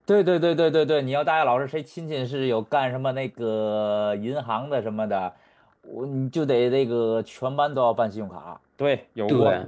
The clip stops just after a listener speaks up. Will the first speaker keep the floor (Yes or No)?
No